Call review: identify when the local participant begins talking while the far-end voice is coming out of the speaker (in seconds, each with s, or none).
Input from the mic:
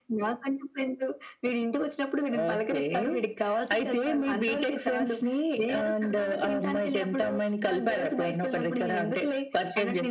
none